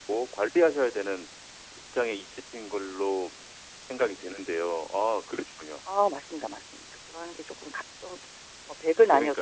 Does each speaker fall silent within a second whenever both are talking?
Yes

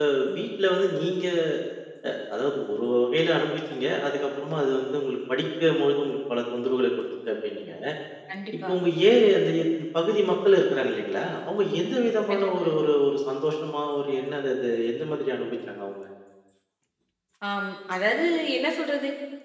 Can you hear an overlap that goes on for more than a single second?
No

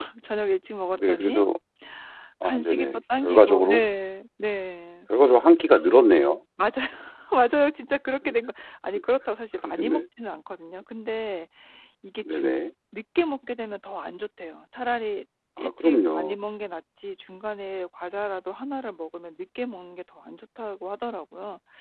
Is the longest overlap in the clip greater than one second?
Yes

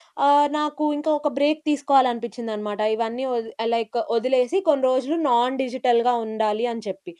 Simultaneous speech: No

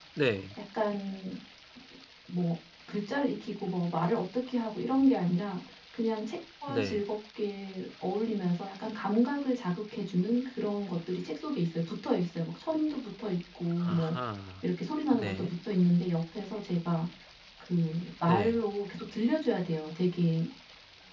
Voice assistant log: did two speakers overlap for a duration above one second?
No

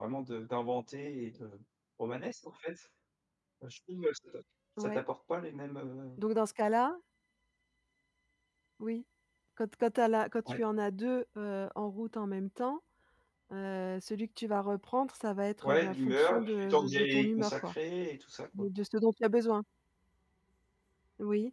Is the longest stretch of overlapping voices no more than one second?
No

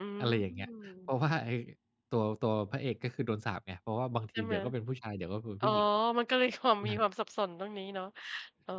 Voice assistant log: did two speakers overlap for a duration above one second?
No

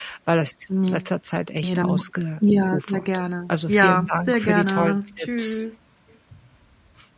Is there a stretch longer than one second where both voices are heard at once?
Yes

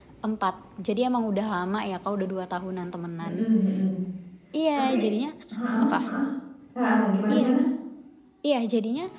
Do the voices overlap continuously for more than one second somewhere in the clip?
No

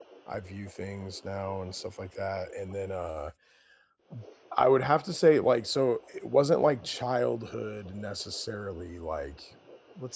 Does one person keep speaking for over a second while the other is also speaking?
No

